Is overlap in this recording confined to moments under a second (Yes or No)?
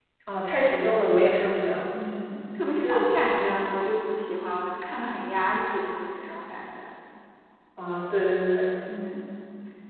Yes